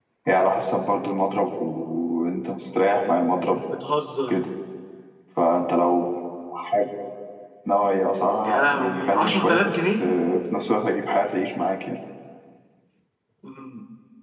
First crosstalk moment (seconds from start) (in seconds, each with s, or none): 8.4 s